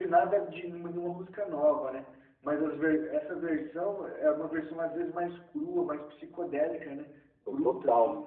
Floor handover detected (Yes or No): Yes